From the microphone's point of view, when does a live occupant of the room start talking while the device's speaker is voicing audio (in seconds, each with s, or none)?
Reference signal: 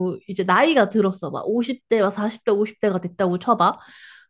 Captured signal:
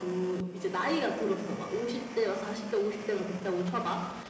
none